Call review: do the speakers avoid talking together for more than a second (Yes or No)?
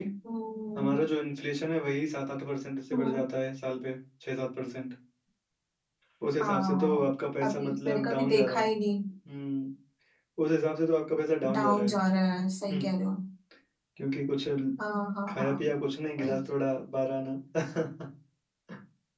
No